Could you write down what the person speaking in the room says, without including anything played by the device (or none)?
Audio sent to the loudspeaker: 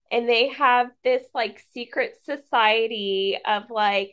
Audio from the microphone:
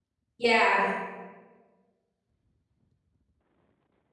yeah